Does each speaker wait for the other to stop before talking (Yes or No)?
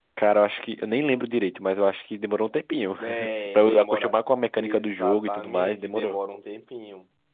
No